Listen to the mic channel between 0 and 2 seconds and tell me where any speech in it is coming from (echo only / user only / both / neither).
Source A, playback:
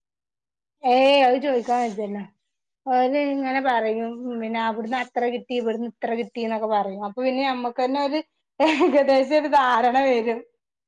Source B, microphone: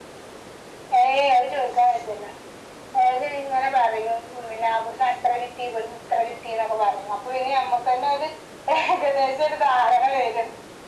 echo only